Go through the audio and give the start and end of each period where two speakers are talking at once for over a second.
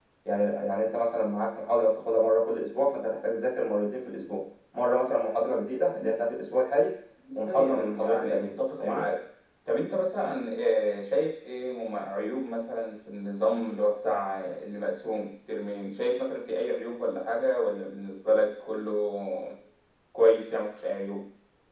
7.3-9.0

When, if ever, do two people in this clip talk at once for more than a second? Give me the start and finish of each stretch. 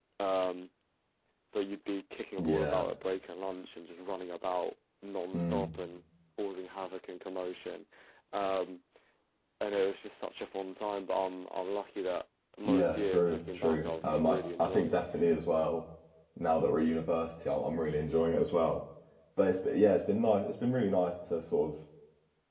12.6-14.9

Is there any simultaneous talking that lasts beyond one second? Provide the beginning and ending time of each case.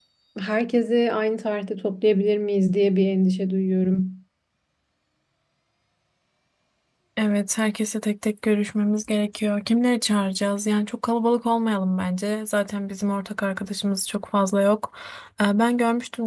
none

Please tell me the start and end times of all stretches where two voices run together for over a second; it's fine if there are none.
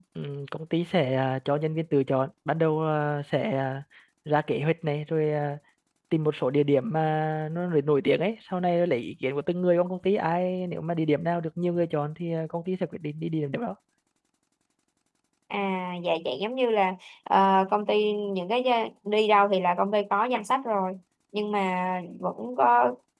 none

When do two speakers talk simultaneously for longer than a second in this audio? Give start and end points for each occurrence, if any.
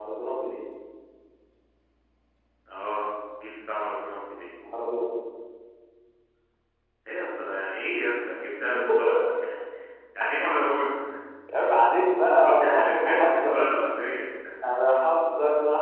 12.4-13.6

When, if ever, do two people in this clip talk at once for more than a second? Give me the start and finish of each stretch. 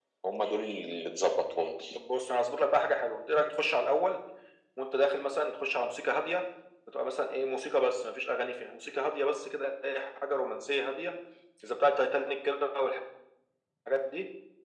none

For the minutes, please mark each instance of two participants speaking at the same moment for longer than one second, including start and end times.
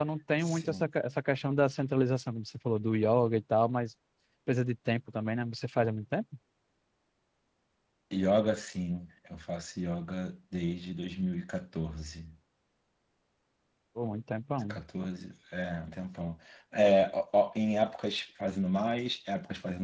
none

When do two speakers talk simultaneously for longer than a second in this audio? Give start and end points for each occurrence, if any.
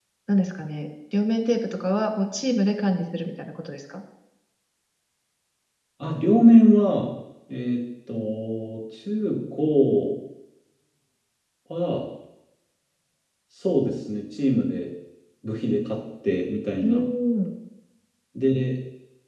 none

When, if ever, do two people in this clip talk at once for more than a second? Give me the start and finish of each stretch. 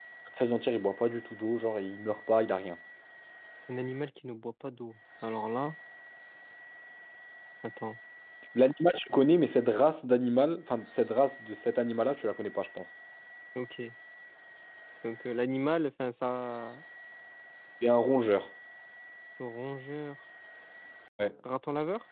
none

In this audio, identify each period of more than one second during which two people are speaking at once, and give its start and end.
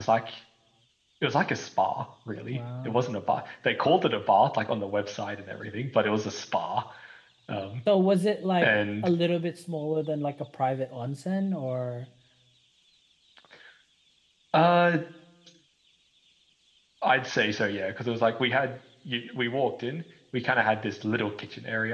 none

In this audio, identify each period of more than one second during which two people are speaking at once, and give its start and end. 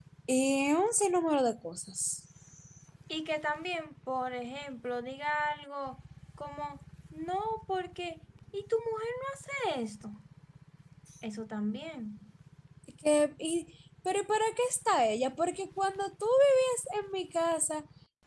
none

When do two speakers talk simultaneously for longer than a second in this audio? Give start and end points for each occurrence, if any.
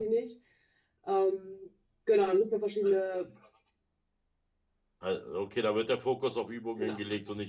none

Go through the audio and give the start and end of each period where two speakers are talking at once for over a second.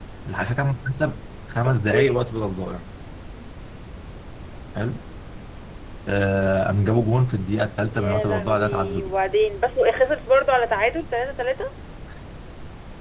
7.9-9.1

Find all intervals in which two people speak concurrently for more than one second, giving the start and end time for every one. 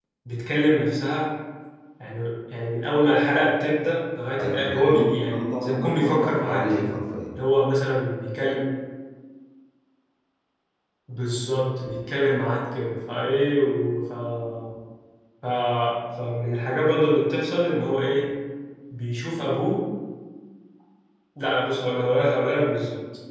4.4-6.9

